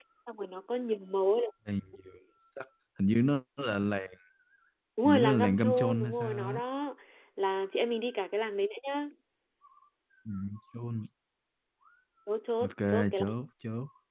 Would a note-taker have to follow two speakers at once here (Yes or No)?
Yes